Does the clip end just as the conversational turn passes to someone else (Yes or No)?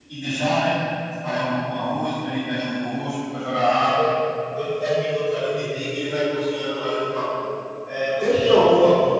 No